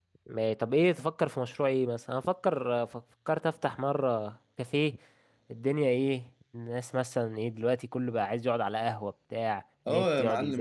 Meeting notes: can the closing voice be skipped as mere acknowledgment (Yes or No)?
No